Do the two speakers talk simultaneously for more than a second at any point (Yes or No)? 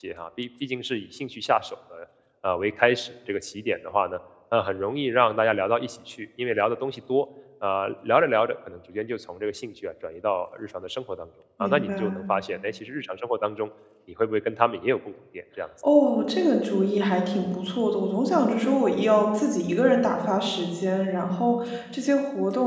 No